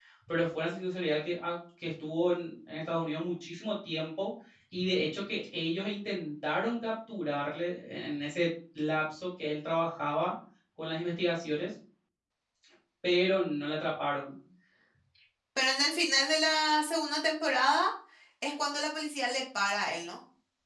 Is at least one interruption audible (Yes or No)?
No